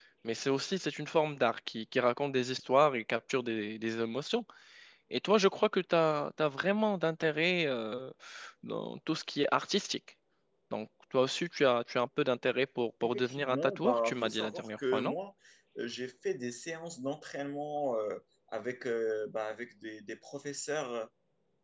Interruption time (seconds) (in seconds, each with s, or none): 13.0 s